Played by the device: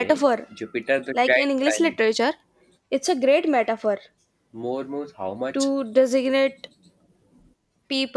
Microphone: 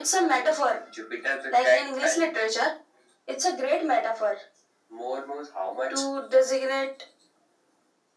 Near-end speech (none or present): none